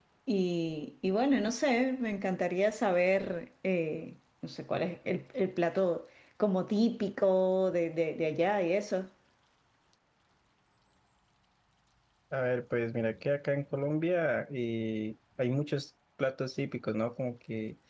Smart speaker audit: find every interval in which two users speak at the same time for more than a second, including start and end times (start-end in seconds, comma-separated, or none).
none